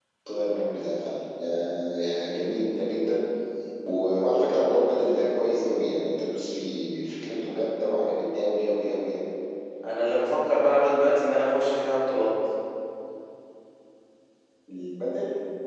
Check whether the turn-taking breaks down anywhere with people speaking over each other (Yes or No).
No